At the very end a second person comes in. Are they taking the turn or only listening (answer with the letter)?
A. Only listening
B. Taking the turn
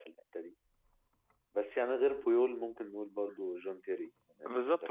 B